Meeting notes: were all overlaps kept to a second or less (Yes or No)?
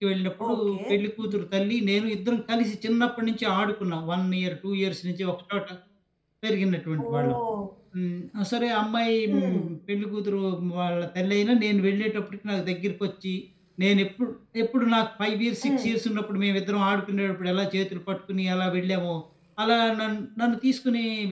Yes